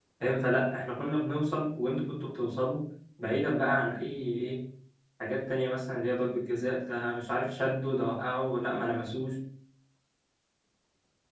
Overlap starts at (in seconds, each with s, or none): none